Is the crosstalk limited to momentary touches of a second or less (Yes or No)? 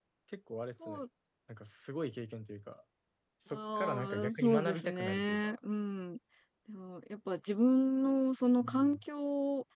No